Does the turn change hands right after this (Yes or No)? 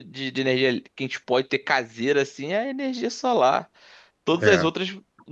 No